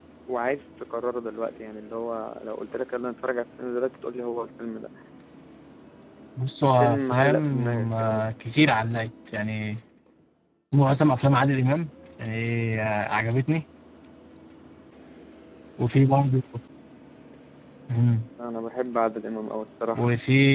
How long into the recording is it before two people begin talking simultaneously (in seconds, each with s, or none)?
6.8 s